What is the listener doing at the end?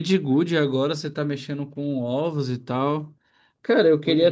listening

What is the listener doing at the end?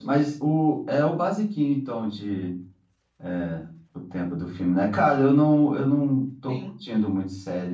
listening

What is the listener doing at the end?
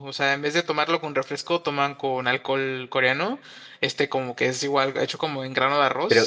taking over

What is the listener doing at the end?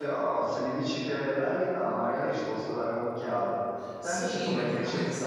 taking over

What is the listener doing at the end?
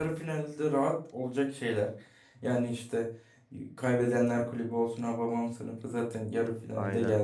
listening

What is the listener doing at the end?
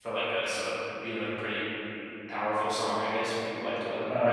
taking over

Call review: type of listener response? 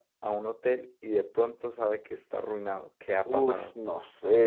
taking over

